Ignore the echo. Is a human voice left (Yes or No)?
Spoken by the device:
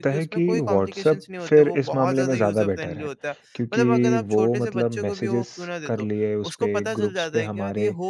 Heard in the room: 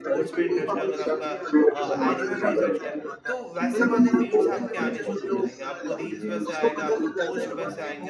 Yes